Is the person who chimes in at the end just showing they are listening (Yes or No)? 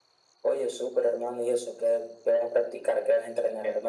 No